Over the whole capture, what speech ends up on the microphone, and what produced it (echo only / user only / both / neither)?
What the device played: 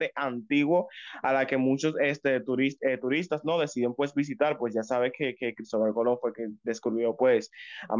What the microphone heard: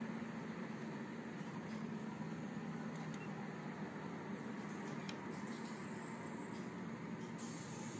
neither